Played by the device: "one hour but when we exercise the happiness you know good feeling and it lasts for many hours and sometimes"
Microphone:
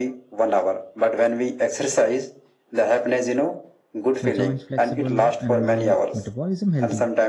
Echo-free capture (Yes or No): No